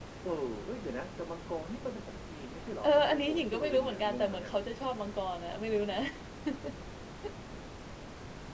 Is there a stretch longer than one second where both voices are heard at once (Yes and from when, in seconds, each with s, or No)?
Yes, from 2.8 s